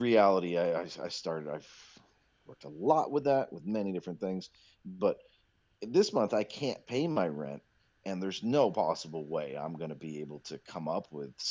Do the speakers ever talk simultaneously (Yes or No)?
No